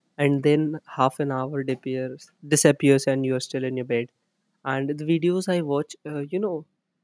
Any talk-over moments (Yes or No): No